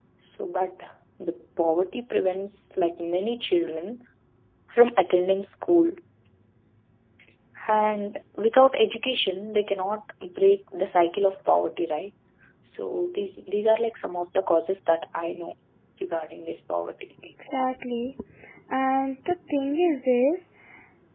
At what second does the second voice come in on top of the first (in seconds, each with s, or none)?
none